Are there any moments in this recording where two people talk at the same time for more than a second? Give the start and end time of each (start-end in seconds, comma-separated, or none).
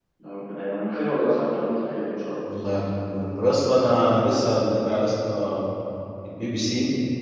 none